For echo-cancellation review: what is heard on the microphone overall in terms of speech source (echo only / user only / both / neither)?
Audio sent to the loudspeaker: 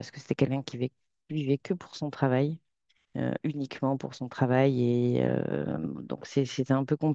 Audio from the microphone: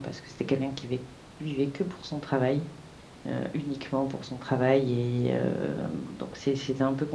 echo only